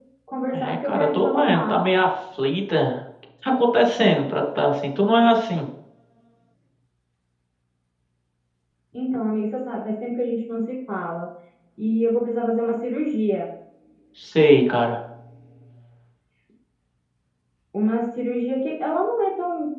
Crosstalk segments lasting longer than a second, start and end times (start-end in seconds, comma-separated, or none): 0.5-1.8